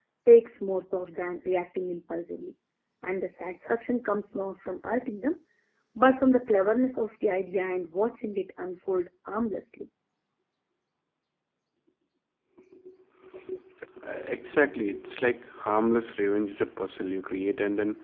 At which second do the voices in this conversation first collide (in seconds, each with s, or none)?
none